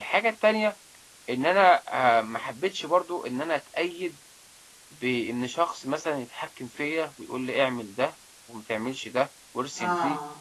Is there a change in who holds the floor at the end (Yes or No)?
Yes